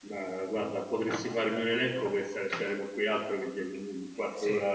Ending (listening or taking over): listening